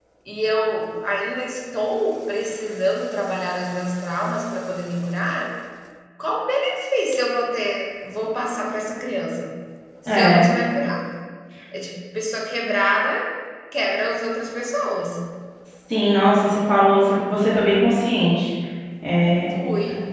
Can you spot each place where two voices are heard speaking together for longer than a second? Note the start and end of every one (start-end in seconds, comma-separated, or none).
none